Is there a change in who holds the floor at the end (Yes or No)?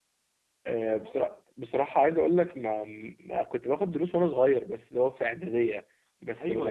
Yes